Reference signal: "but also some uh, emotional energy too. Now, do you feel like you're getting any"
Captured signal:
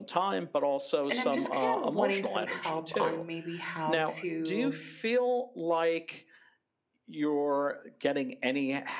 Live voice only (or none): And I'm just kind of wanting some help on maybe how to